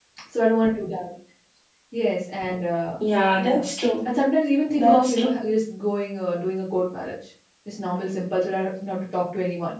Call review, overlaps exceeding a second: none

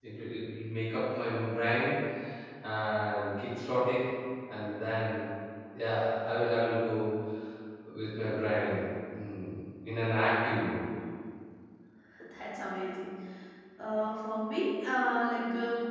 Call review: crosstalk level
none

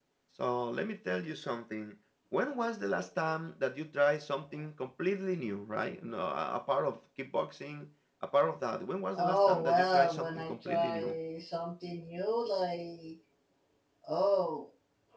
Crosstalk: present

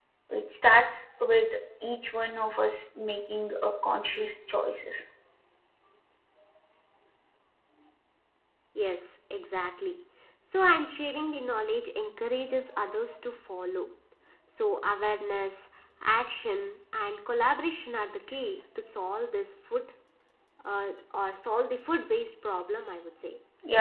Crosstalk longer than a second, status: none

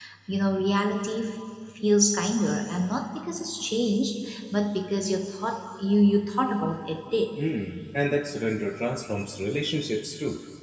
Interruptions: none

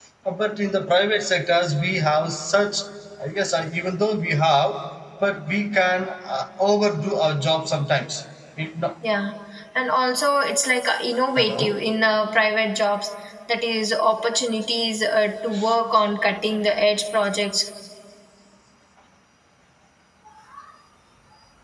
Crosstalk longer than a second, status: none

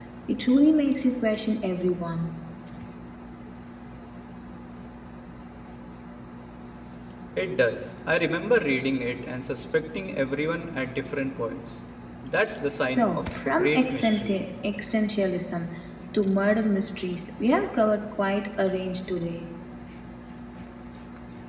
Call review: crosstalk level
present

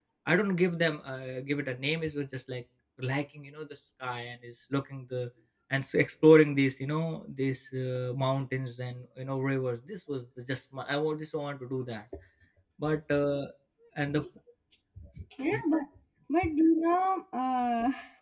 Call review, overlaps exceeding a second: none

